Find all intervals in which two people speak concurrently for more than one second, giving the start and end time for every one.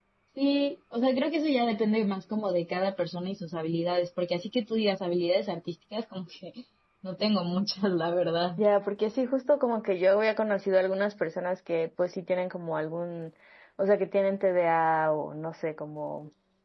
none

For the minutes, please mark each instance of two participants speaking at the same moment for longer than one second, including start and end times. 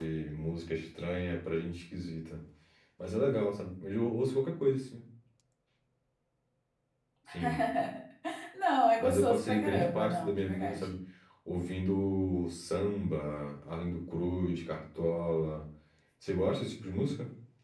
9.0-10.9

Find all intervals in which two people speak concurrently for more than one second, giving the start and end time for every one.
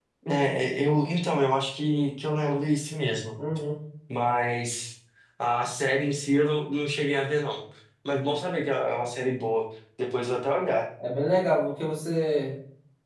none

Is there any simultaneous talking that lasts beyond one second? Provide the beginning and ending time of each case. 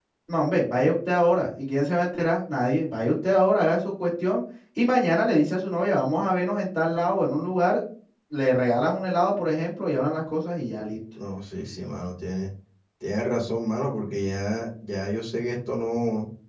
none

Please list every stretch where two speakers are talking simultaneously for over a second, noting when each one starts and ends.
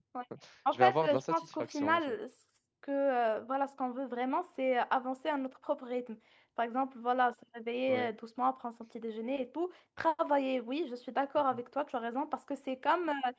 0.7-2.0

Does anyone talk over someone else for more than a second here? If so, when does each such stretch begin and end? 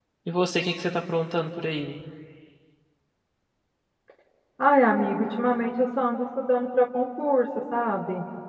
none

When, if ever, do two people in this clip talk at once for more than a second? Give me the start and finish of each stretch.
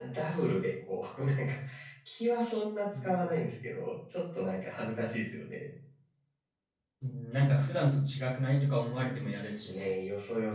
none

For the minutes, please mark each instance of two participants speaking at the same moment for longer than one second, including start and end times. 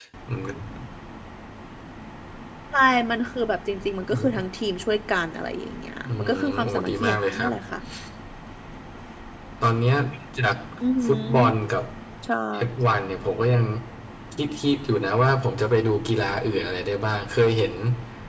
6.0-7.5

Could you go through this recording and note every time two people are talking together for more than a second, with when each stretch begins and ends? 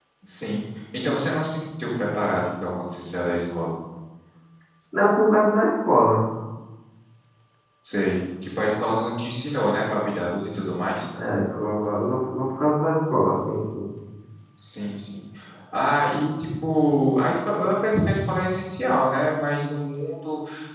none

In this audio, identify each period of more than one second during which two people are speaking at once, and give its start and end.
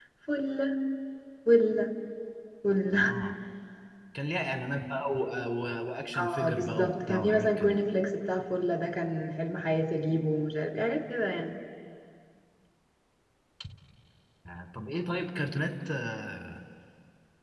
6.2-7.7

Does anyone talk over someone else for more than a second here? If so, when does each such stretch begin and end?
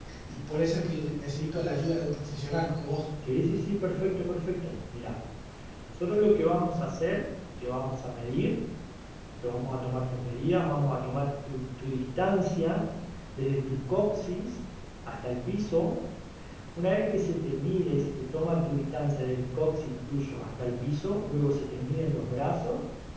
none

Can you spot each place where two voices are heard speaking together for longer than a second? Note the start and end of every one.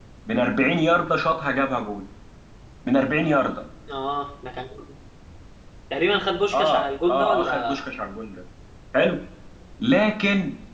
6.5-7.8

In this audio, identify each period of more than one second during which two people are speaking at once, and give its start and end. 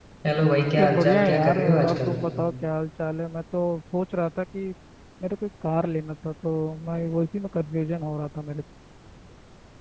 0.8-2.2

